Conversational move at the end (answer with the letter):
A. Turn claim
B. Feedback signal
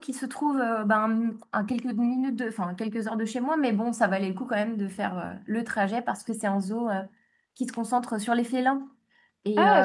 A